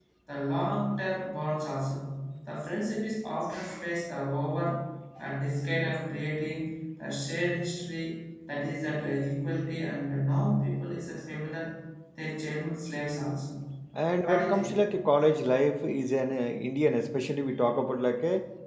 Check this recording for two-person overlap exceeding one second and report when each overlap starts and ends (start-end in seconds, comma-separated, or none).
none